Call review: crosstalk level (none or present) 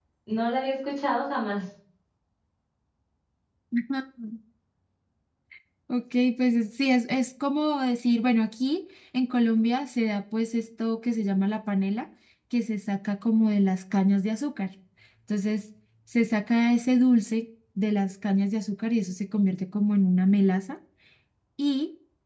none